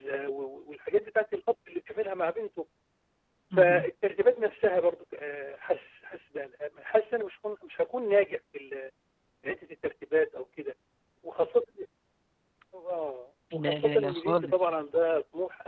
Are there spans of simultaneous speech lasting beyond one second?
Yes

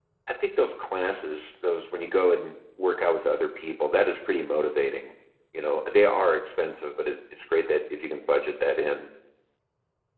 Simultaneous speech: No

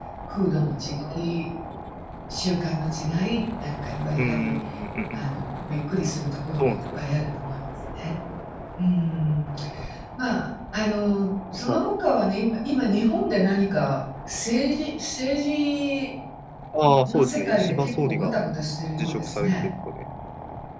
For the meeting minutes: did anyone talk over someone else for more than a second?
Yes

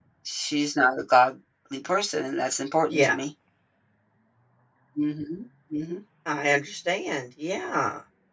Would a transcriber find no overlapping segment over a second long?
Yes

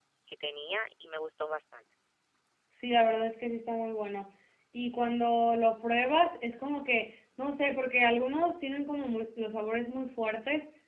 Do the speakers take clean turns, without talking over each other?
Yes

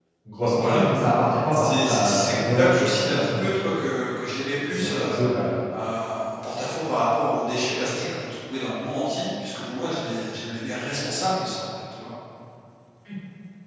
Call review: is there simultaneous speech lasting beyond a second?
Yes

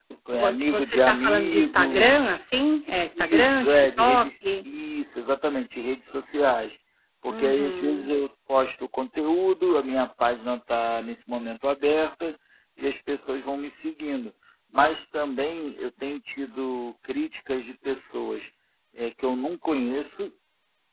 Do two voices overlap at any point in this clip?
Yes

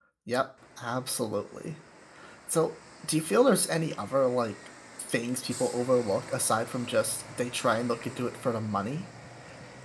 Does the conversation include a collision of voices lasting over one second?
No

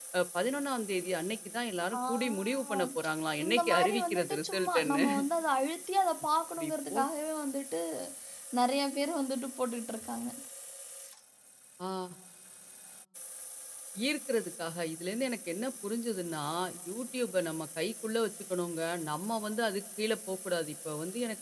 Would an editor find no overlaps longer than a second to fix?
No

